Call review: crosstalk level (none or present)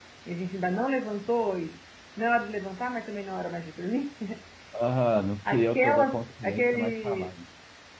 present